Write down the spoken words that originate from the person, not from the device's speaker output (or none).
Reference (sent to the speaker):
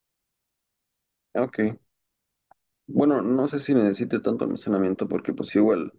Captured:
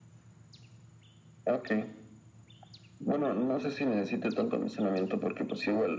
none